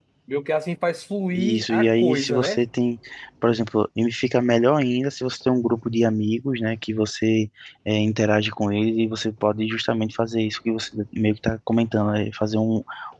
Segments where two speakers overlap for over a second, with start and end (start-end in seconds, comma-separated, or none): 1.3-2.6